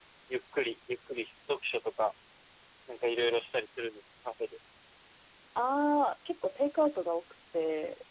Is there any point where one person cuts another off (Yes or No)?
No